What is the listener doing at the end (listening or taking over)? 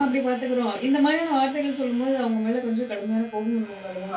taking over